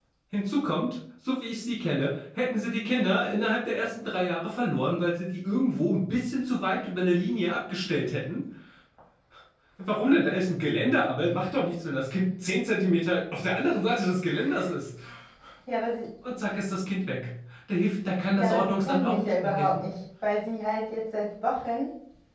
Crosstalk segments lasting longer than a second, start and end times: 18.4-19.8

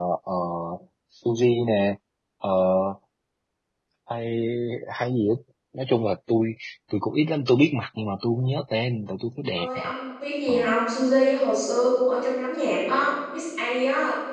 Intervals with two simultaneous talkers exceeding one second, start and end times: none

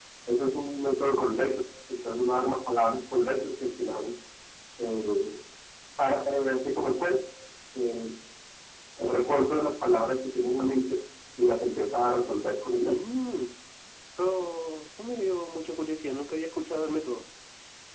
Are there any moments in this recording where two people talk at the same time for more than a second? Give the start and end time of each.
none

